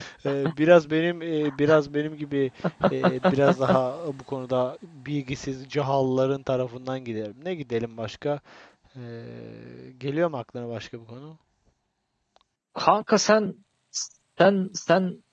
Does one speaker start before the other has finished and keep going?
No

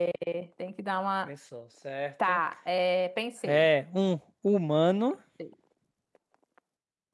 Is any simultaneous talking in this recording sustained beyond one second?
No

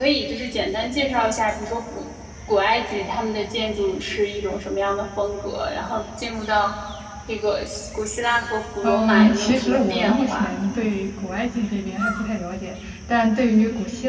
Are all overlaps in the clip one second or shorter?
No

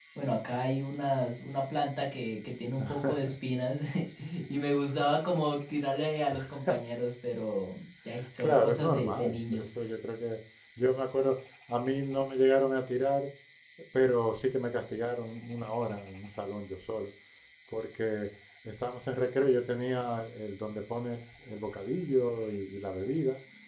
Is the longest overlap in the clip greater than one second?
Yes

